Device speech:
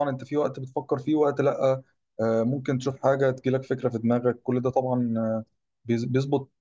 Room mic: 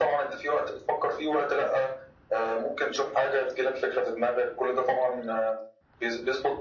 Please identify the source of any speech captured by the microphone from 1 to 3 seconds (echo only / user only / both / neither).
echo only